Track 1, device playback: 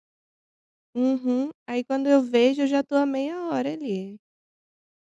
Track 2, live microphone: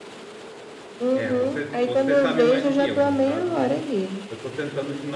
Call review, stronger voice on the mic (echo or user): echo